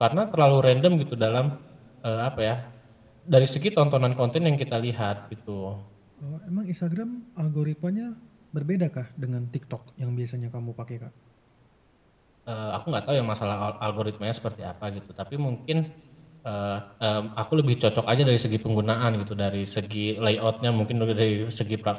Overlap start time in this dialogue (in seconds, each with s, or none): none